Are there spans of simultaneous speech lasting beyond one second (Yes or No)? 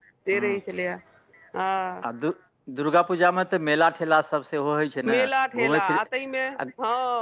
No